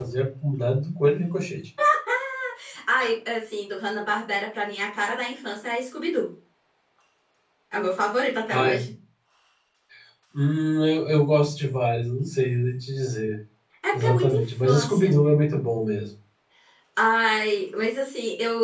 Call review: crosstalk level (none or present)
present